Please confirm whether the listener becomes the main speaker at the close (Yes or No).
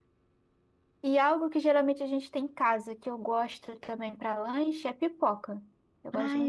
Yes